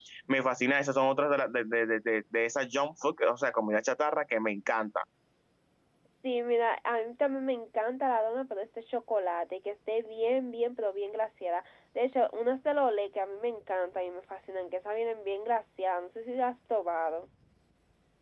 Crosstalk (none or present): none